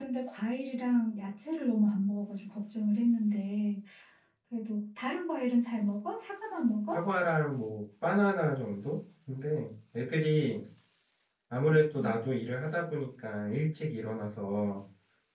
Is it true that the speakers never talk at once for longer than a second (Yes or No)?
Yes